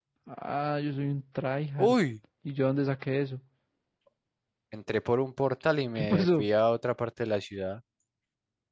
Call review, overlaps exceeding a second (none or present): none